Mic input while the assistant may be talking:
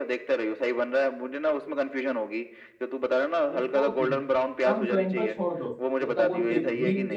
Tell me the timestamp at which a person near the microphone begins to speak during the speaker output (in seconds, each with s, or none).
3.5 s